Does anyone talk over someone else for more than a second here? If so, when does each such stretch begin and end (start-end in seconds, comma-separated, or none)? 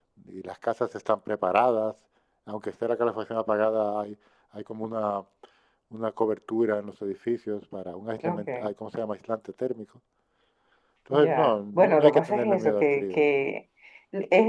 11.1-13.2